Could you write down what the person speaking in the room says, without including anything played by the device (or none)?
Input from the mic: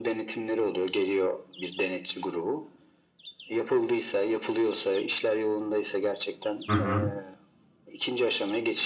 Hı hı.